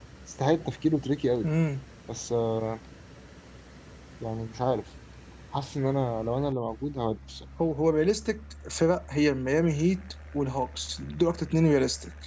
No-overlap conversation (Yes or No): Yes